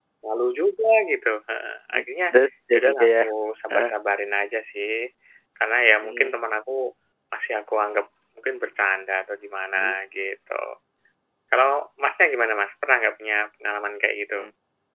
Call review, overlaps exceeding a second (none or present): none